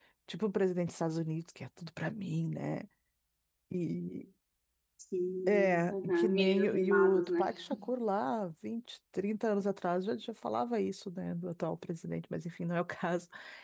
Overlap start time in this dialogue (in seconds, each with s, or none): 5.5 s